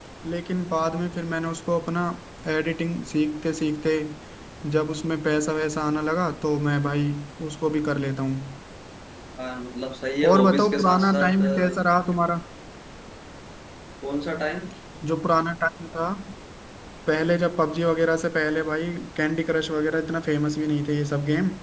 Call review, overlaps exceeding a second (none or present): present